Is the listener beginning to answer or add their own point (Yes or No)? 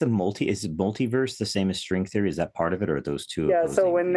Yes